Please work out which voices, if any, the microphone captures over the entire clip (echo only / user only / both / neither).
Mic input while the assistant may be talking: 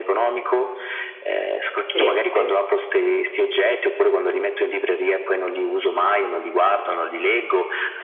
both